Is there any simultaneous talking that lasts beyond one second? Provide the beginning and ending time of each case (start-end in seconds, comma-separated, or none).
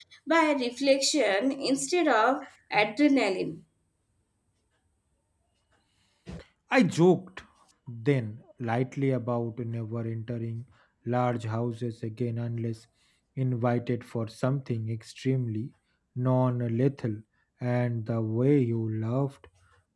none